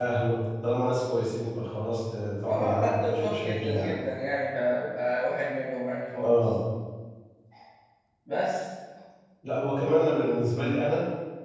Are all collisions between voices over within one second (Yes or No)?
No